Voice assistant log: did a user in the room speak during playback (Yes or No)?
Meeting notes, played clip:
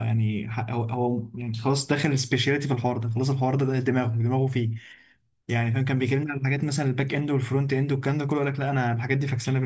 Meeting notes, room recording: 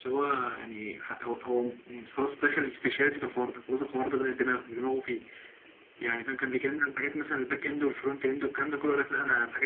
No